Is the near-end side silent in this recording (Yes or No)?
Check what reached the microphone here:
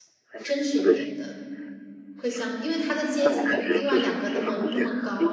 No